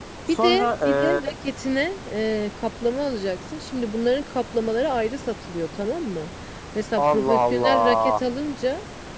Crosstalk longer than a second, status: present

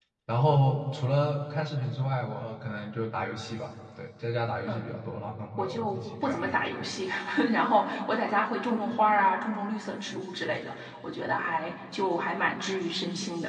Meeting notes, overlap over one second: present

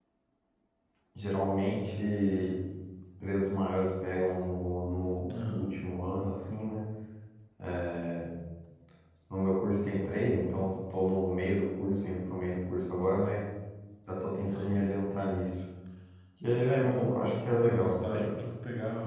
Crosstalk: present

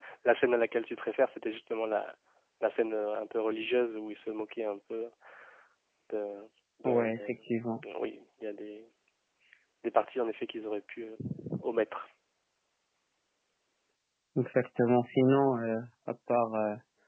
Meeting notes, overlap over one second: none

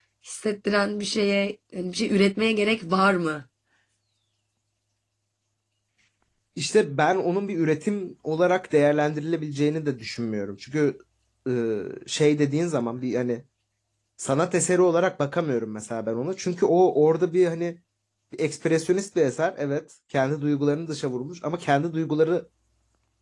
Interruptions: none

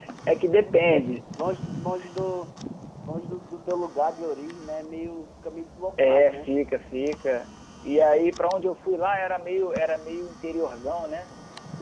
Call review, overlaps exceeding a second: none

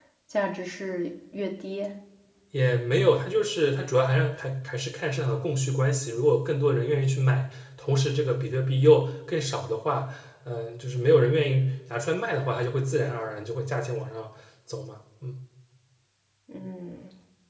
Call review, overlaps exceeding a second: none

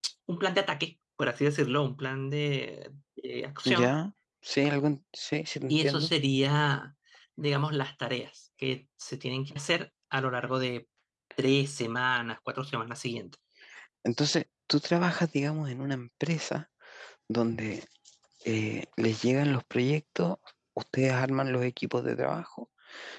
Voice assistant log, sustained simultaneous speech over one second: none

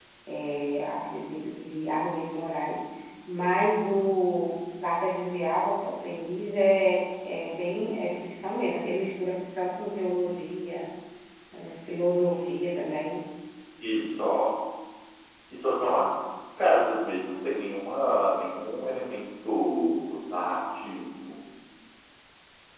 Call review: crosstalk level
none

